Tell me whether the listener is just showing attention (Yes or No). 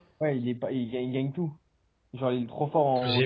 No